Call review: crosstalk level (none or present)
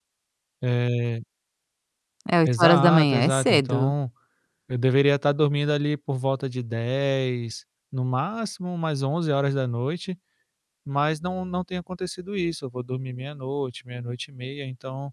present